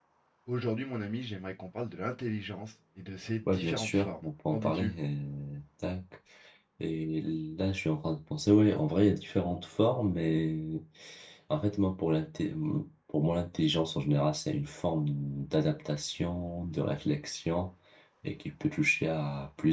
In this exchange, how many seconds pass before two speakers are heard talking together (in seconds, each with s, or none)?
3.4 s